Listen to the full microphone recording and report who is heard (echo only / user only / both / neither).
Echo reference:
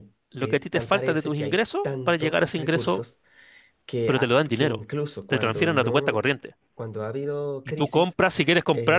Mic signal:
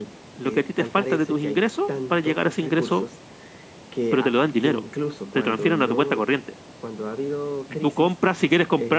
echo only